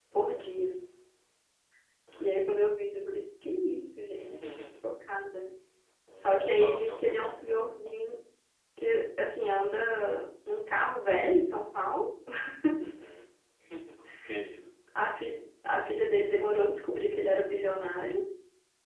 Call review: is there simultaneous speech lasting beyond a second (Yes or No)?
Yes